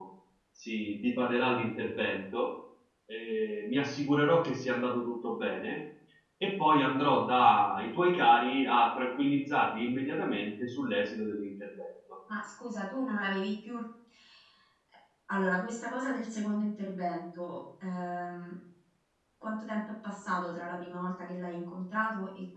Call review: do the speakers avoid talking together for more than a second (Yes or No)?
Yes